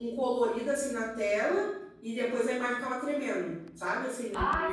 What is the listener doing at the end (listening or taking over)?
taking over